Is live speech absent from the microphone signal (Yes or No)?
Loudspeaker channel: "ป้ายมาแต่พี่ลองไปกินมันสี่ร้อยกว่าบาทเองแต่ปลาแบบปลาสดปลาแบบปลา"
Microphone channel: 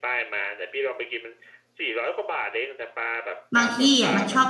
No